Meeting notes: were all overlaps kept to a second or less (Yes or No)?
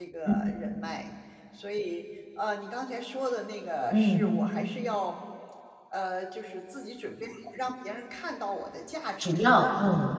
Yes